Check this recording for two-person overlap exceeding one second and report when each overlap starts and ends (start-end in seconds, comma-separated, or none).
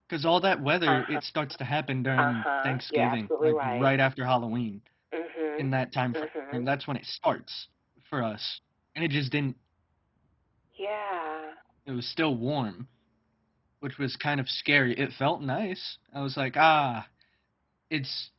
2.2-3.9